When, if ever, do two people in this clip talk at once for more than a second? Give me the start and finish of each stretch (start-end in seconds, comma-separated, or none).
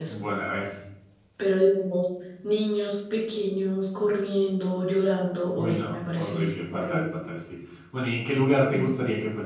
5.6-7.0